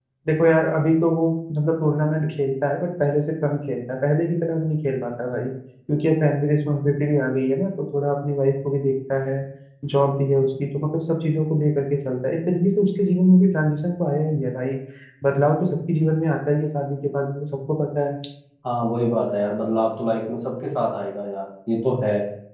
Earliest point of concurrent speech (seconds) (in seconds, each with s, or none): none